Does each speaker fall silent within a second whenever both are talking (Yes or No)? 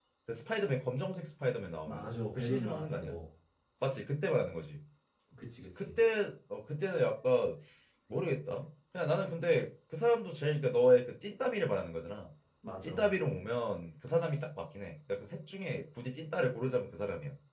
No